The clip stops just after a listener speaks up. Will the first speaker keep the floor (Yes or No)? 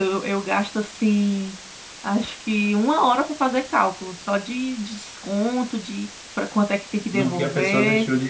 No